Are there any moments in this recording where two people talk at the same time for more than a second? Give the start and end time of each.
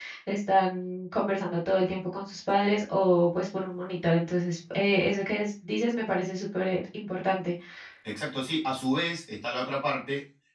none

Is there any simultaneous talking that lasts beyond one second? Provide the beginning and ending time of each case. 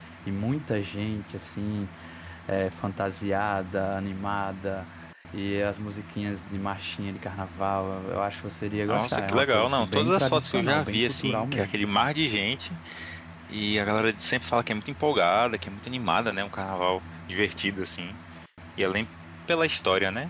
8.9-11.8

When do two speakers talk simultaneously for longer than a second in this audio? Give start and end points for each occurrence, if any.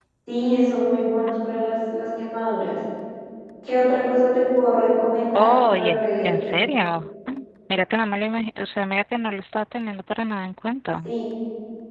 5.3-6.6

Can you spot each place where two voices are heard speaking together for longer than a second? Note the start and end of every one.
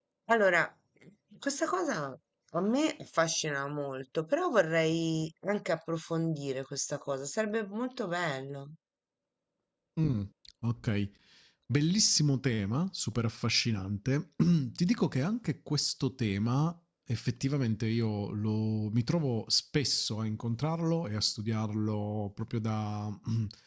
none

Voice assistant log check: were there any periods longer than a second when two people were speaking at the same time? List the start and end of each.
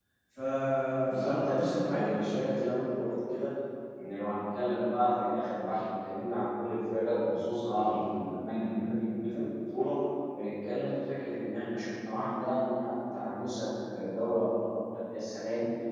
1.1-2.7

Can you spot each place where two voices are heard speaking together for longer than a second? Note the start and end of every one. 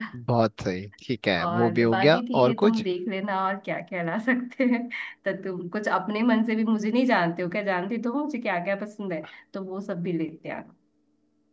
1.4-2.8

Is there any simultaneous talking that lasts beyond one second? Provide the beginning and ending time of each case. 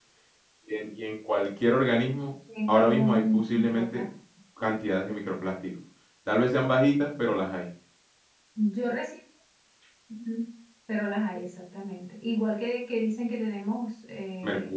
2.7-4.0

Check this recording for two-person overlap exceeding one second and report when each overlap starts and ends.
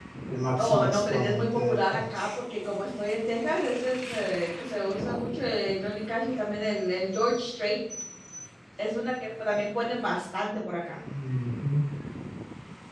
0.6-2.3

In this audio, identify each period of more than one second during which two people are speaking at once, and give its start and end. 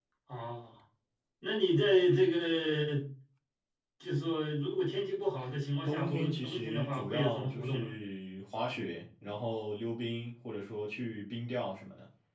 5.8-7.9

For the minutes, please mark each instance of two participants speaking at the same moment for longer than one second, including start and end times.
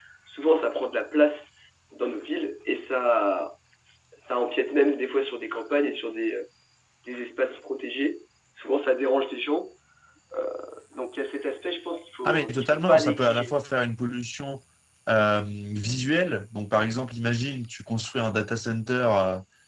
12.2-13.5

